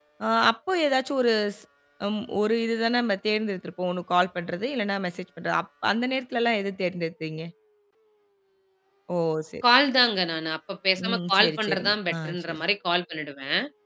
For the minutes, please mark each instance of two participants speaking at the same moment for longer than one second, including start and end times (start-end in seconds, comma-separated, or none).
11.0-12.6